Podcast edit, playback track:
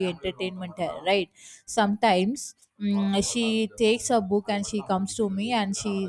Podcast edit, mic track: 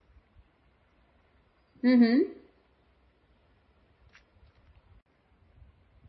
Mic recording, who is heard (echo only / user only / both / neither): user only